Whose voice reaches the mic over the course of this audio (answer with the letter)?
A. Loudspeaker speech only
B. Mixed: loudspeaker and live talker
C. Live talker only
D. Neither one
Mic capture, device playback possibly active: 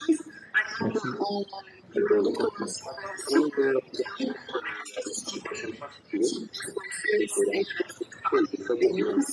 B